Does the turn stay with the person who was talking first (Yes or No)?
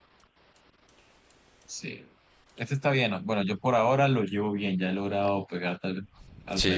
No